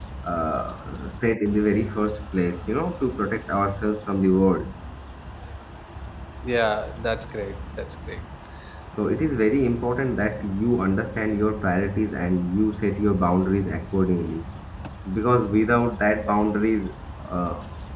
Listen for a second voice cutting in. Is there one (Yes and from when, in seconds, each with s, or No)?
No